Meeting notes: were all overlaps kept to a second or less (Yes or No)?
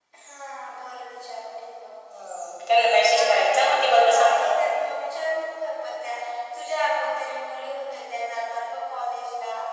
No